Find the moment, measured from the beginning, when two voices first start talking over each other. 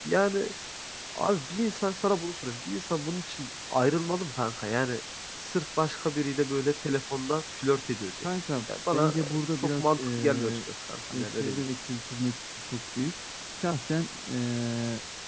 8.9 s

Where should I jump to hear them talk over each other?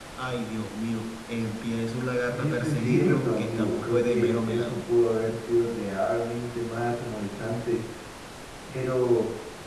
2.3 s

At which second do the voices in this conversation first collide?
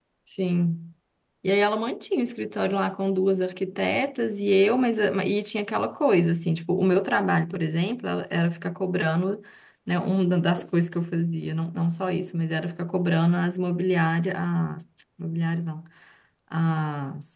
none

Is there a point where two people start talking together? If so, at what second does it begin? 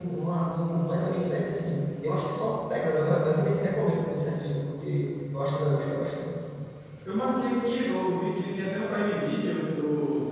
none

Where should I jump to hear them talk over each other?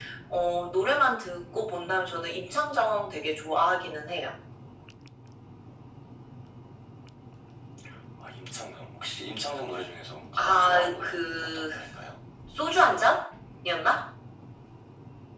10.4 s

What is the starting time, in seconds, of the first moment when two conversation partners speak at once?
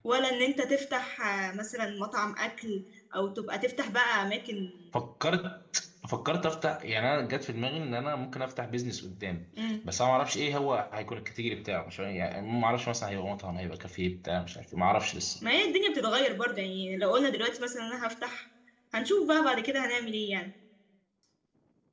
none

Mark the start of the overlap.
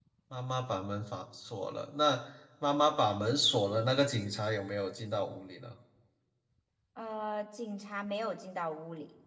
none

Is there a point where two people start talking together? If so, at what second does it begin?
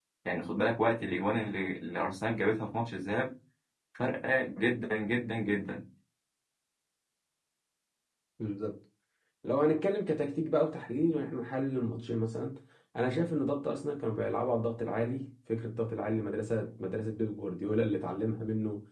none

